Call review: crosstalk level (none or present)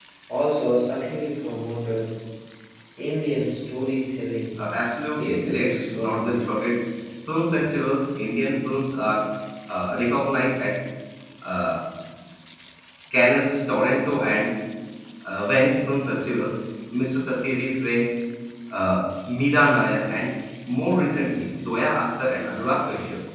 present